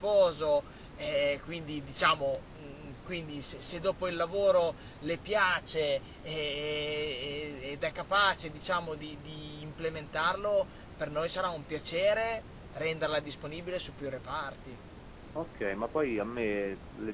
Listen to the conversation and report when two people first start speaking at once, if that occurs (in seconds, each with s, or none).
none